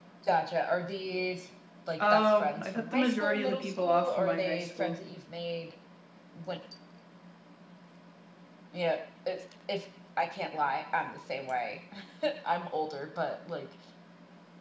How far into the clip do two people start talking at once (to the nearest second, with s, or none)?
2 s